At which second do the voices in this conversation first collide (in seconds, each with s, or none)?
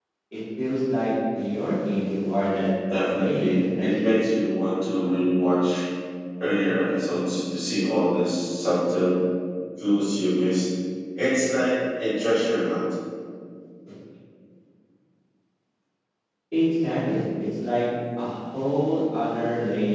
2.9 s